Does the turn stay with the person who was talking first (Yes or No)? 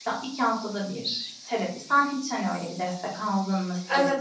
No